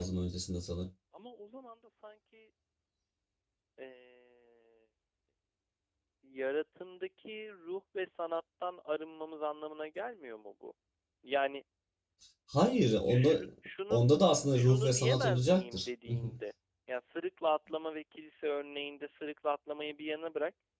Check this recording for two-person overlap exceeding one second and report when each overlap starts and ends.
14.6-15.9

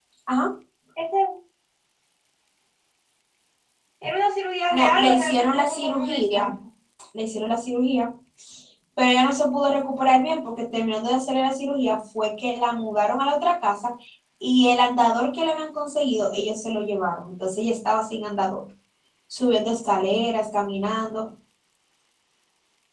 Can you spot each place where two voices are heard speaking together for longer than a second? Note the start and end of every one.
4.7-6.5

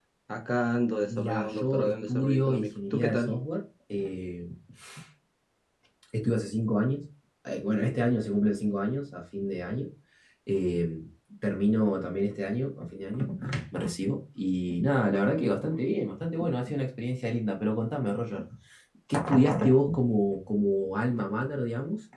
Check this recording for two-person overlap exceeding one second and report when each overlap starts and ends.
1.1-3.4

